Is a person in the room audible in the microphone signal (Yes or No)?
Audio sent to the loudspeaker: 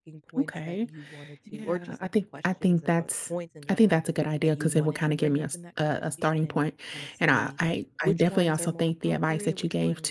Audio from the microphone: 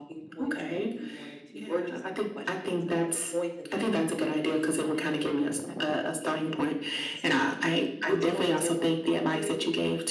No